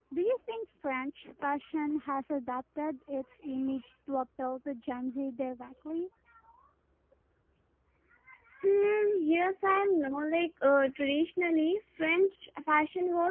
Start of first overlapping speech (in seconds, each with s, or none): none